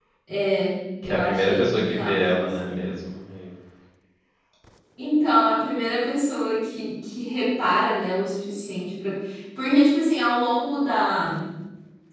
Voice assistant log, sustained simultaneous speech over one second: present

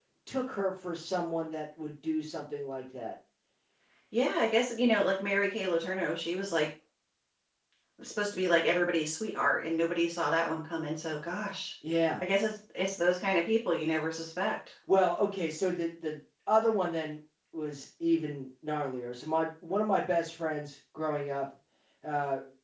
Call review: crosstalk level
none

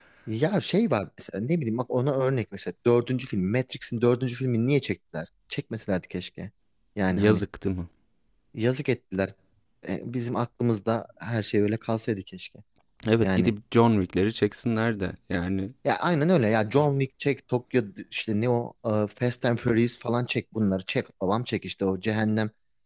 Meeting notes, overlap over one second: none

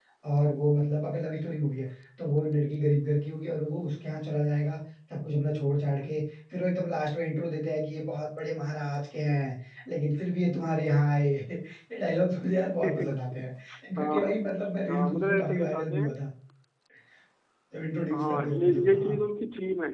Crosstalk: present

